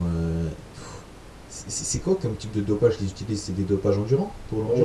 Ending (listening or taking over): taking over